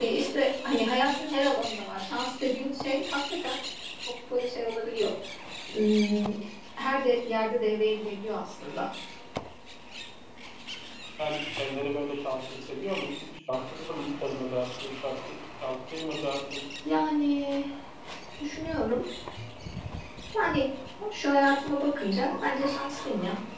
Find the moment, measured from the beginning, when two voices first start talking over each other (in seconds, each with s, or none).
none